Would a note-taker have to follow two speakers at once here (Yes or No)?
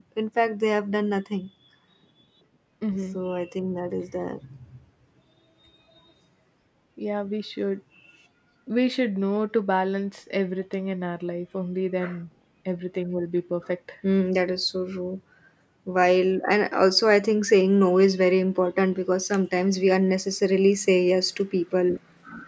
No